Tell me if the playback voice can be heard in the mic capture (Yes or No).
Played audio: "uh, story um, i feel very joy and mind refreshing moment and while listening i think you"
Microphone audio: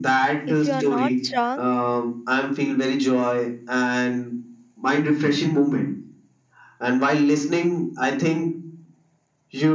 Yes